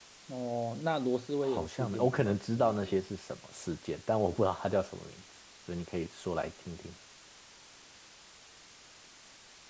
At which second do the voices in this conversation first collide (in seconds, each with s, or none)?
1.4 s